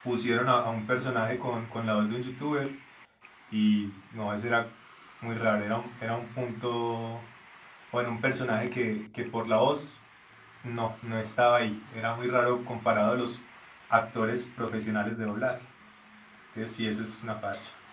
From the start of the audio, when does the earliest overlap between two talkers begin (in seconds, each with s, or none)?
none